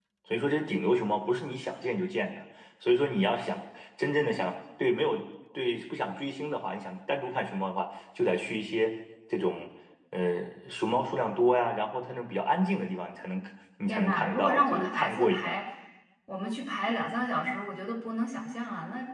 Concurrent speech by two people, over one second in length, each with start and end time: 13.9-15.6

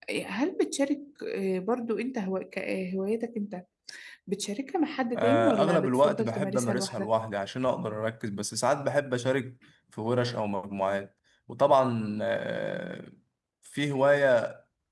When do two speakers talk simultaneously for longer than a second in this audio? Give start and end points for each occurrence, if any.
5.1-7.1

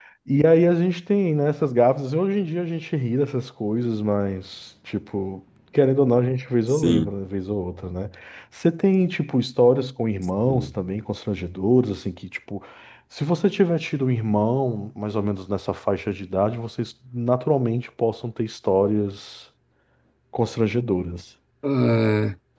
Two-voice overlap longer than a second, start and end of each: none

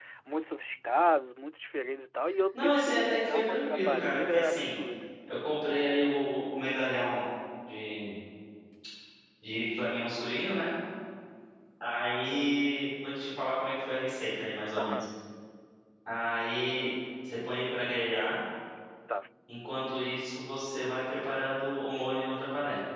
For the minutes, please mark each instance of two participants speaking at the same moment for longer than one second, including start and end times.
2.6-4.8

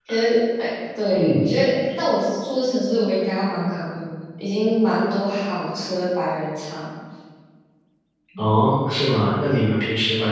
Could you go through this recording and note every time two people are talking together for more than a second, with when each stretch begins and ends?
none

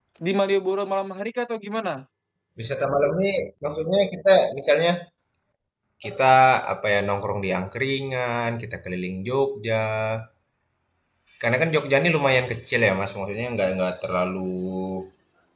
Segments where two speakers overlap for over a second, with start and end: none

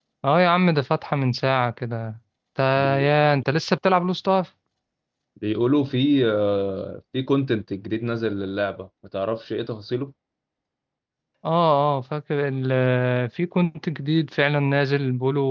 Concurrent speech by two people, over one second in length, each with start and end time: none

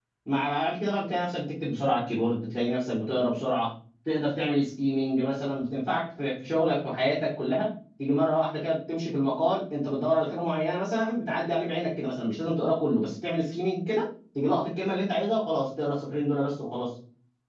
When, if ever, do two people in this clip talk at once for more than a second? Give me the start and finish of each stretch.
none

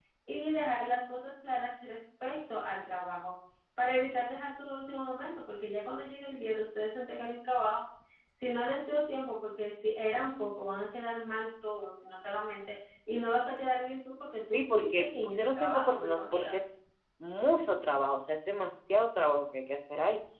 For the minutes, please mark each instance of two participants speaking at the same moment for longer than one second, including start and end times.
14.5-16.6

